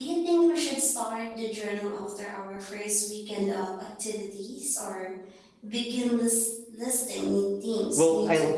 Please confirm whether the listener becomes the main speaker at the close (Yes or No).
Yes